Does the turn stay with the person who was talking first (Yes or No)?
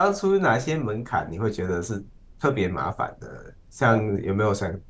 Yes